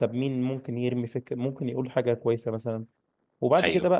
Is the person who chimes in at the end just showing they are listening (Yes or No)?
Yes